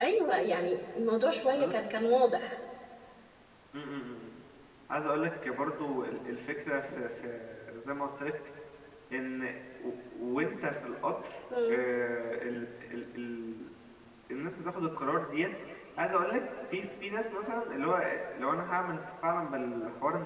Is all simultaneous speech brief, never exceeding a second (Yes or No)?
Yes